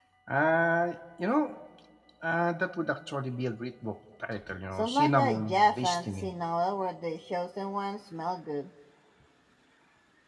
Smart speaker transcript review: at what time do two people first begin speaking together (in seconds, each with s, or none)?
4.8 s